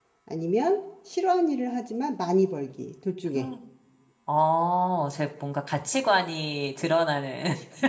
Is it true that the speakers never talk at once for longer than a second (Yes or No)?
Yes